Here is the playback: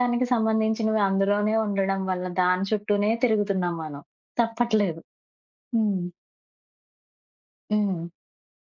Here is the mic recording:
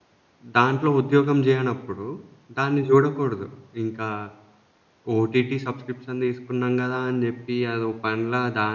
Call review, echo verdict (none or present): none